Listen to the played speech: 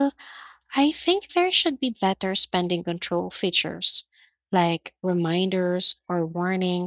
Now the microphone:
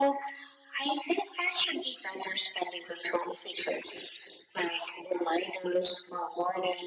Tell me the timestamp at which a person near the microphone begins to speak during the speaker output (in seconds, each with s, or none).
none